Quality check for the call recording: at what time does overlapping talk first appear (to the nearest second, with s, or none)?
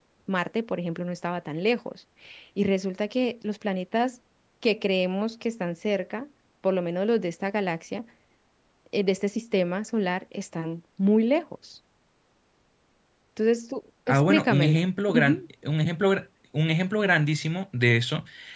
14 s